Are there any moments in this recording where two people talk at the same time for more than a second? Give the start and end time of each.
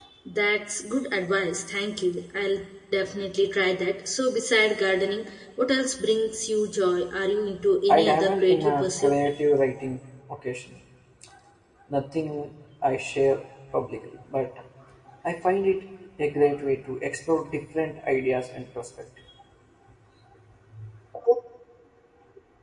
7.9-9.2

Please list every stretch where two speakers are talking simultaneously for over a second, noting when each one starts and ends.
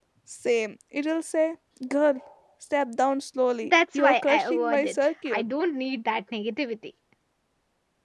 3.6-5.4

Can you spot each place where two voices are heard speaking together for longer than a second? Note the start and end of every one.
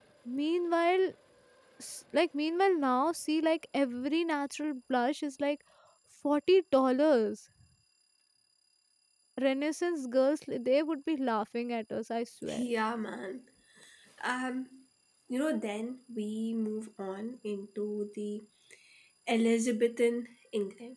none

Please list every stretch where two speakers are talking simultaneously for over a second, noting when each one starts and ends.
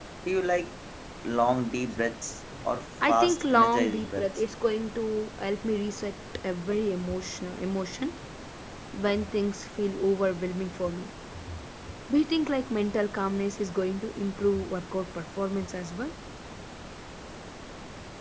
3.1-4.3

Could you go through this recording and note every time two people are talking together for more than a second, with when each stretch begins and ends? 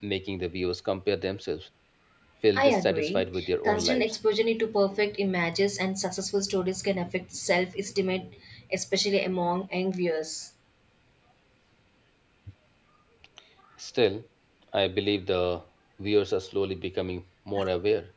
2.5-4.2

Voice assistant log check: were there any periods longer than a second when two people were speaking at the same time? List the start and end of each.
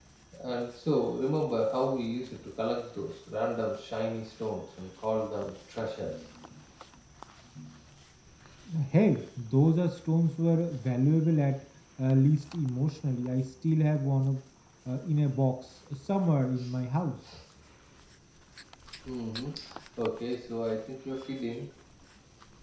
none

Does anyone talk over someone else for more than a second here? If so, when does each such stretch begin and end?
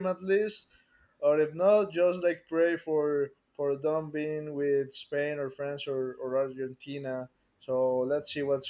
none

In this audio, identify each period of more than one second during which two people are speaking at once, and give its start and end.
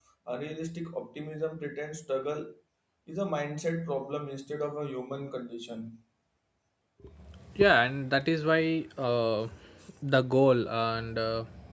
none

